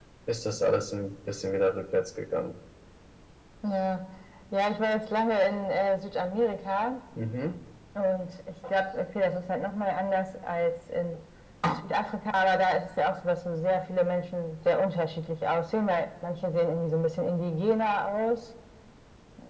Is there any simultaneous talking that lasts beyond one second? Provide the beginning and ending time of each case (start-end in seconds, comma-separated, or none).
none